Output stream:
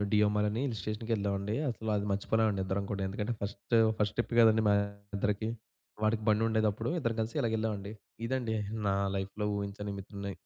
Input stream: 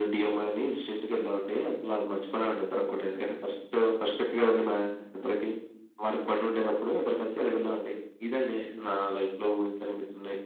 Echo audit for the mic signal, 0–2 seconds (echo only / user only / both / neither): echo only